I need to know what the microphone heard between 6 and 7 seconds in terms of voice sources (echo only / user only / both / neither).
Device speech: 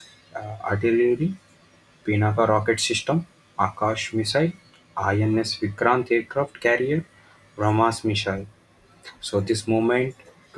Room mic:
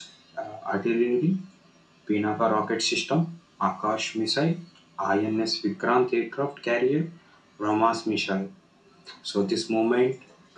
echo only